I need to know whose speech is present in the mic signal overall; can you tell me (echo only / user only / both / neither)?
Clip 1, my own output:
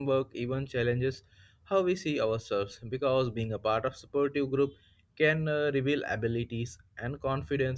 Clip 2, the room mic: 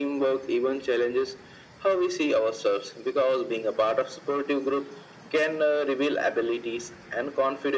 echo only